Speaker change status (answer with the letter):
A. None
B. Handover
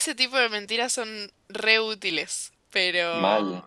A